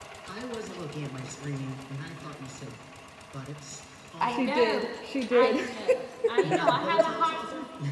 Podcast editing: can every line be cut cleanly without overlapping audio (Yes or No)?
No